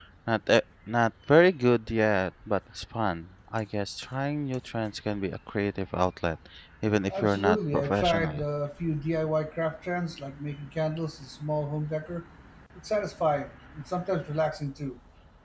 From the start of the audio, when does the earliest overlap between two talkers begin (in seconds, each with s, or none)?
7.1 s